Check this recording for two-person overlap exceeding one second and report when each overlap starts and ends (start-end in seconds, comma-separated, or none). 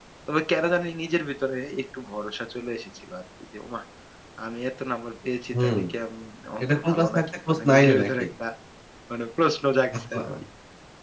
6.6-8.2